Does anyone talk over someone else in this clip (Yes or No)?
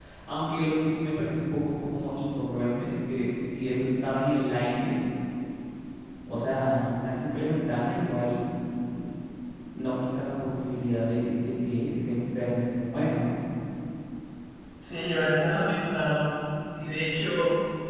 No